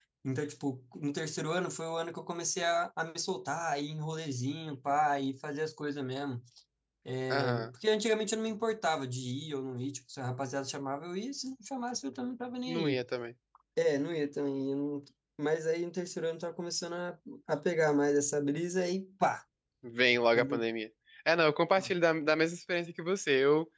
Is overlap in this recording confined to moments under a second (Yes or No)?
Yes